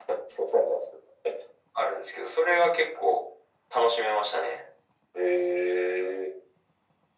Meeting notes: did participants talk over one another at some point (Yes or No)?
No